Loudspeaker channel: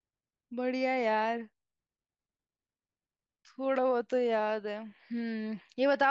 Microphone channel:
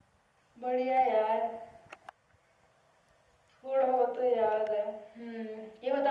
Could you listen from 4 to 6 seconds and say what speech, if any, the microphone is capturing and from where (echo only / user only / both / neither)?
echo only